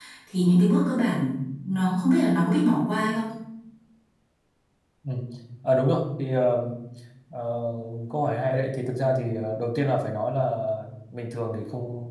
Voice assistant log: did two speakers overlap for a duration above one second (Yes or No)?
No